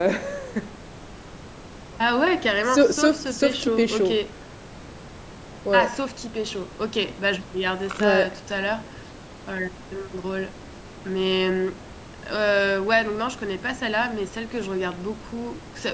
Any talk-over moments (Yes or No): Yes